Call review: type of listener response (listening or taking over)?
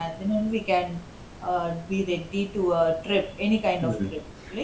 taking over